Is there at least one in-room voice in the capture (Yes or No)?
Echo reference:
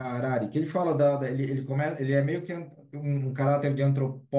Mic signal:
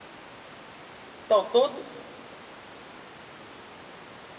Yes